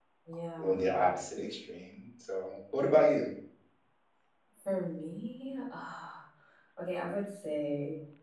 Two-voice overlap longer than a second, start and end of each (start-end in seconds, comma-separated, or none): none